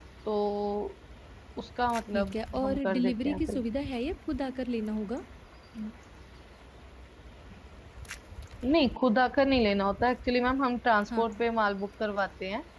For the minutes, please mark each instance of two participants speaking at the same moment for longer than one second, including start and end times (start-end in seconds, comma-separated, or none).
2.1-3.4